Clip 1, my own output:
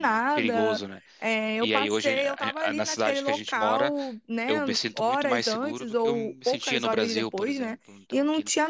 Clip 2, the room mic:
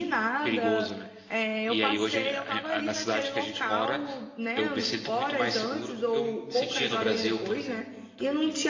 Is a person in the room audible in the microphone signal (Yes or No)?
No